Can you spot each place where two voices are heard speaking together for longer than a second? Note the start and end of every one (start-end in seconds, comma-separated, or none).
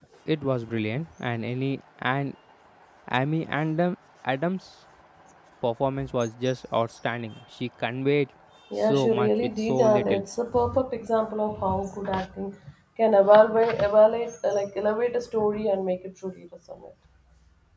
8.8-10.2